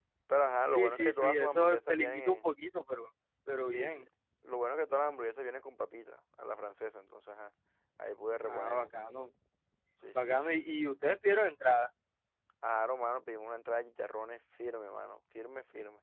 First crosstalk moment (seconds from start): 0.7 s

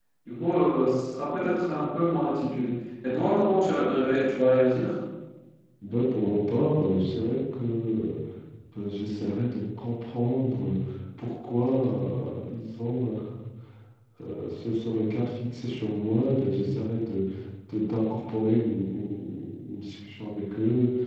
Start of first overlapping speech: none

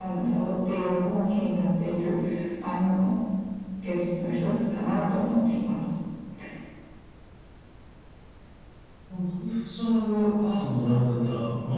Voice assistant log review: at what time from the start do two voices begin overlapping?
none

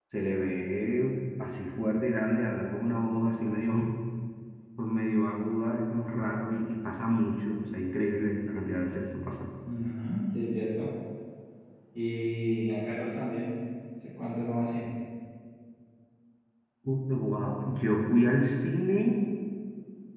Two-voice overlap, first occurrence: none

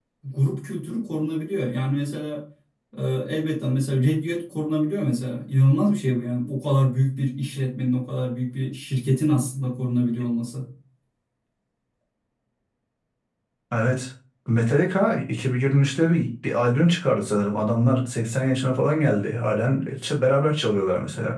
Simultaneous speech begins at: none

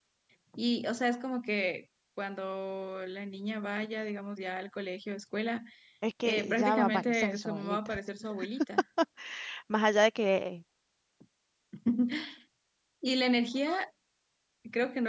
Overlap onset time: 6.2 s

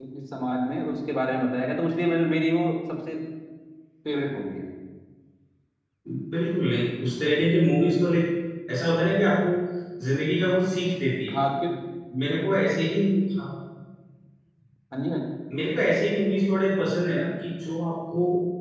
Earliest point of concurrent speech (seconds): none

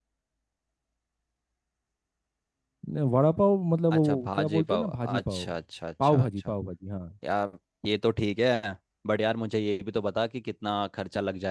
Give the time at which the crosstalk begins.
3.9 s

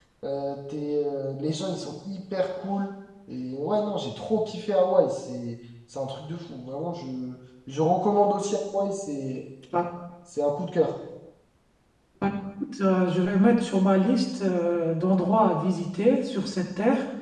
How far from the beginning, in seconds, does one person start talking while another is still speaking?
none

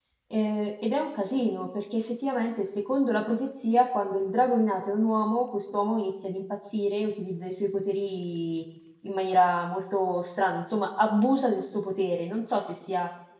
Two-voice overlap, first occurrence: none

